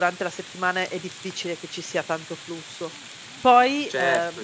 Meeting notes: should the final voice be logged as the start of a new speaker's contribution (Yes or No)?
Yes